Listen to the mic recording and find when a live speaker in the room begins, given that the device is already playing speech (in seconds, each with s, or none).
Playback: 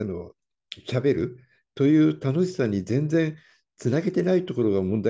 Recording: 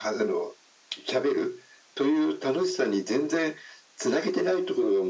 none